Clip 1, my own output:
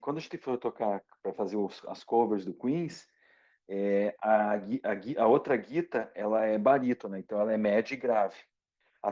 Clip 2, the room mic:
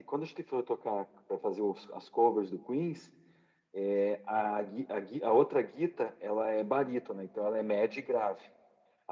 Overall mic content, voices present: echo only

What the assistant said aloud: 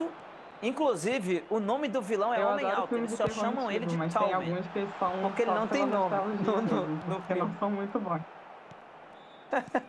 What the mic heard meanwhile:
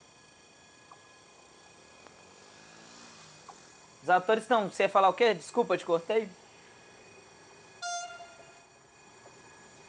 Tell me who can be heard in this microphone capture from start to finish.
user only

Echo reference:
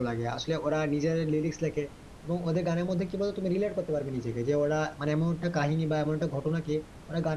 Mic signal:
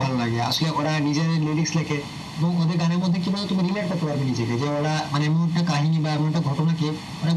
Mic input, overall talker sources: echo only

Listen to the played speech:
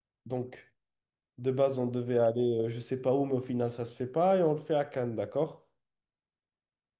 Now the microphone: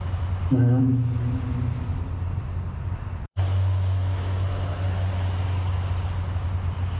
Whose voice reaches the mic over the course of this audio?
user only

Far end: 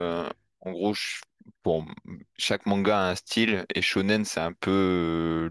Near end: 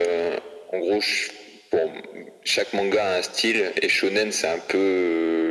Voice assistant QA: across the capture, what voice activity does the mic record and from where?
echo only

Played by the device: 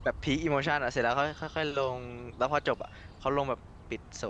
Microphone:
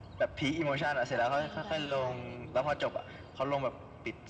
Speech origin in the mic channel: both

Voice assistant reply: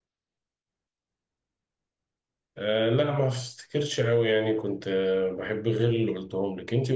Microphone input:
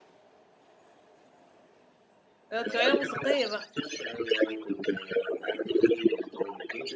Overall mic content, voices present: both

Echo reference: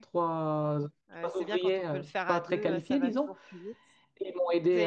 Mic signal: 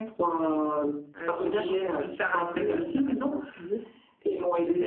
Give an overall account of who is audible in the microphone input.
echo only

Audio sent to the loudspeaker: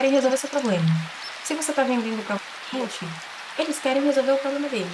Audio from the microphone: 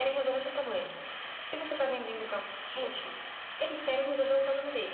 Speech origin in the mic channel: echo only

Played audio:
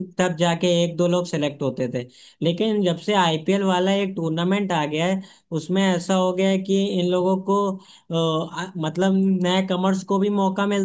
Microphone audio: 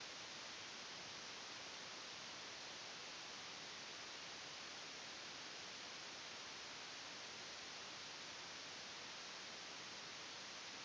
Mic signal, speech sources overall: neither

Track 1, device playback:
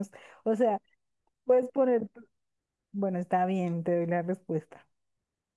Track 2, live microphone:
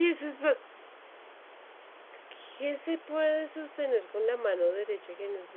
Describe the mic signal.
user only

